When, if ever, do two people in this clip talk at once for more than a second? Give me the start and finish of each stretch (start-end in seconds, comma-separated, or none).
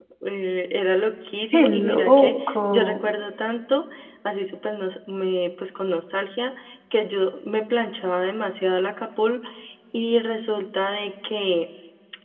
1.5-3.0